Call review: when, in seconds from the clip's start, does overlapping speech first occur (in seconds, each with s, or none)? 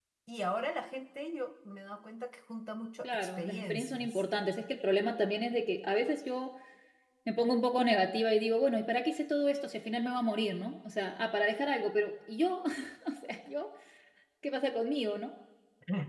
3.0 s